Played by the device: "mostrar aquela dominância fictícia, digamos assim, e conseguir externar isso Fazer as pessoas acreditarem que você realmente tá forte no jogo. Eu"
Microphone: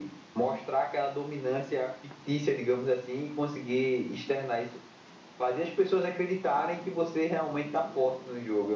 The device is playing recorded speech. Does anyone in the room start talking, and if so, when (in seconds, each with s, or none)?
none